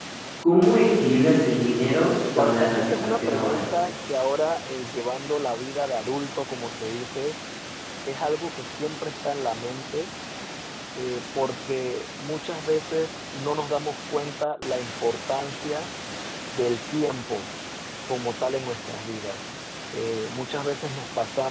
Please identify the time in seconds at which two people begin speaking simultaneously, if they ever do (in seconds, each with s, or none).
2.4 s